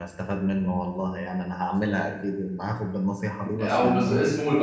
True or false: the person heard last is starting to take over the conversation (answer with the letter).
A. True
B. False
A